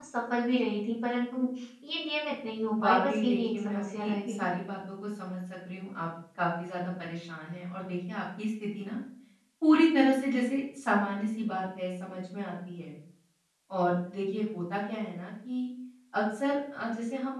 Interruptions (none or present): present